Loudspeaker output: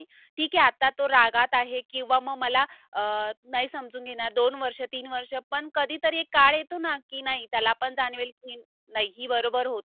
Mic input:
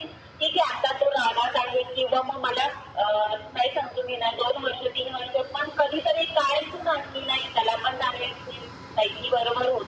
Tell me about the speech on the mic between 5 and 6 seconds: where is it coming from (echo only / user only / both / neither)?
echo only